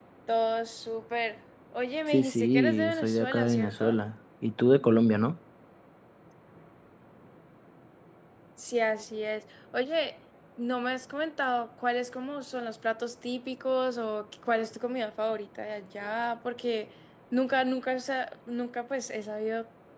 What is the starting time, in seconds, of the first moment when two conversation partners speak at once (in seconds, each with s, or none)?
2.1 s